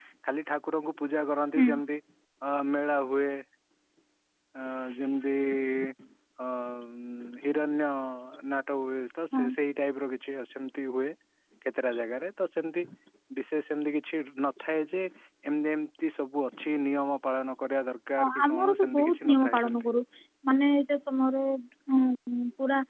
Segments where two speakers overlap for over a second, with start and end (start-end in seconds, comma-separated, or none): 18.2-19.9